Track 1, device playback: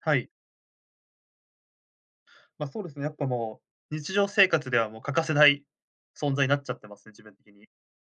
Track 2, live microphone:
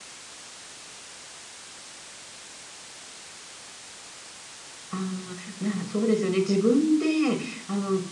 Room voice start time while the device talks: 4.9 s

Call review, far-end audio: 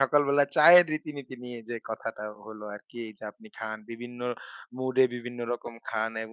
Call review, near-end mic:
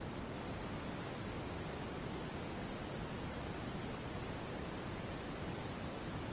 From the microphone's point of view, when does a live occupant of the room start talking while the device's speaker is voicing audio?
none

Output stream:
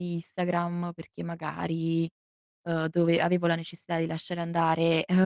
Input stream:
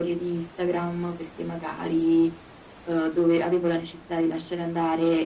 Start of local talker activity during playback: none

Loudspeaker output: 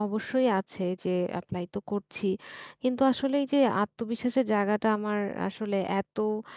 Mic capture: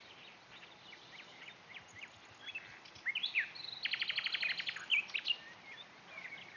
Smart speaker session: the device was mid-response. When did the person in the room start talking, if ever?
none

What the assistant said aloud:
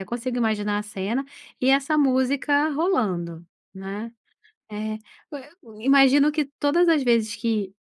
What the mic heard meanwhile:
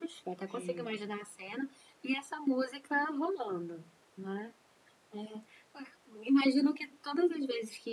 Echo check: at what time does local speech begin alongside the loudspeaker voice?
0.5 s

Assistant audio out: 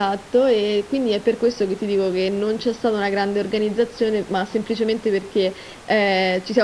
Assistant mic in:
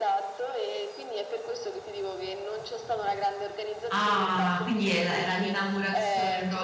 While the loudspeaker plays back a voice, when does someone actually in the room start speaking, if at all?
3.9 s

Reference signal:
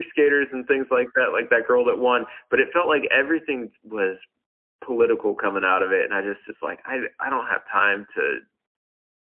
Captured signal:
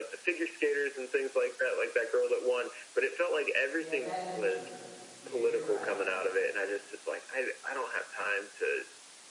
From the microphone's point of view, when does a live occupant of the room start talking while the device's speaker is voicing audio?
3.8 s

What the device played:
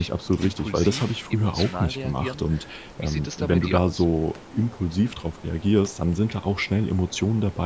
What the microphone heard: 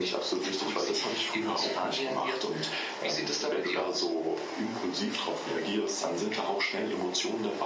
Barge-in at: none

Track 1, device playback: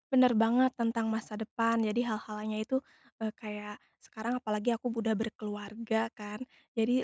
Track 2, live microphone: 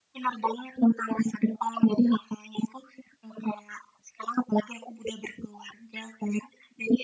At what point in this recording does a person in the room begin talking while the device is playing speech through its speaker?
none

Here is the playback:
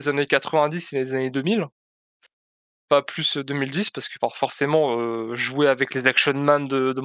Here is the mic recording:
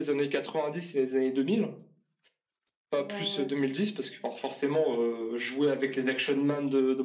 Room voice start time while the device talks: 2.9 s

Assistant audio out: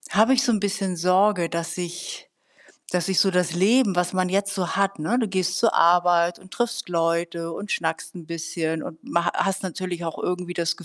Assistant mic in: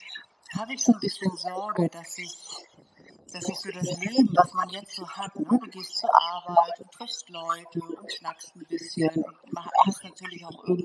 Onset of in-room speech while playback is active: none

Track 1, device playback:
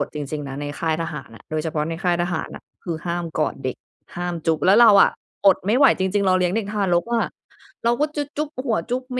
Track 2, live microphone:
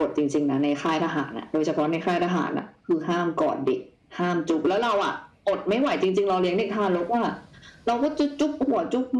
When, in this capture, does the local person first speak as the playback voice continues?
none

